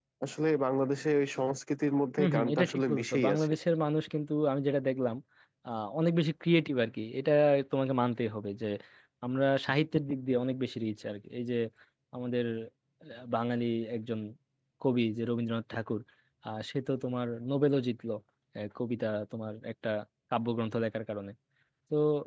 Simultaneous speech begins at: 2.2 s

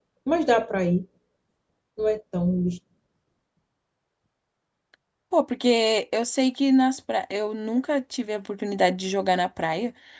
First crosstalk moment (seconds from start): none

